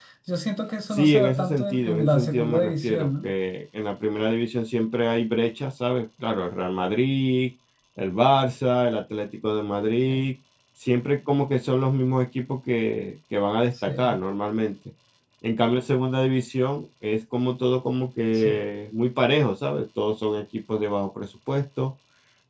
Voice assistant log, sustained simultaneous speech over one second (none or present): present